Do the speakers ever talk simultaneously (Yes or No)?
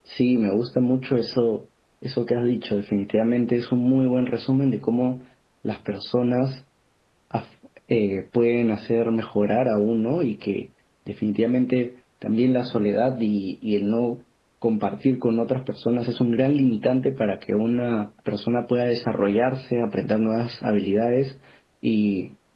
No